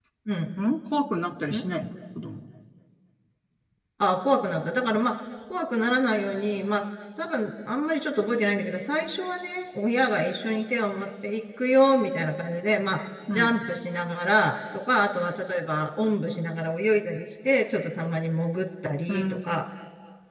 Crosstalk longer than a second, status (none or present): none